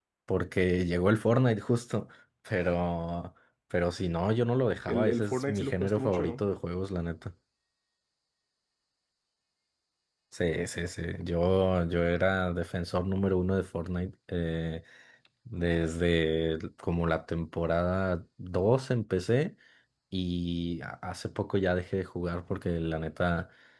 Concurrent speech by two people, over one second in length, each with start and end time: 4.8-6.4

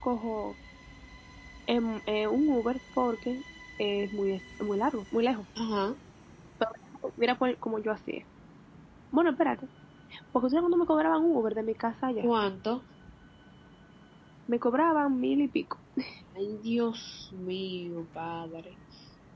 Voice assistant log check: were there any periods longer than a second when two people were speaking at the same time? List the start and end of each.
none

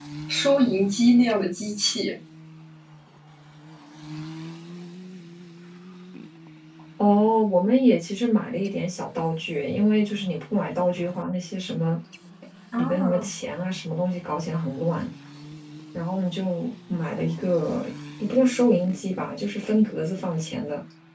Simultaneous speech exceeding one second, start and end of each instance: none

